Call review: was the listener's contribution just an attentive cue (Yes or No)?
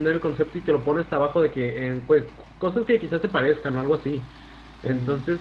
Yes